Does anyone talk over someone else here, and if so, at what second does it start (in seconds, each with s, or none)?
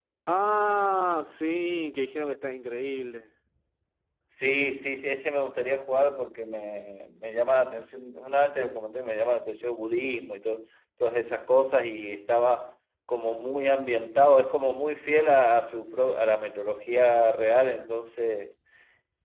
none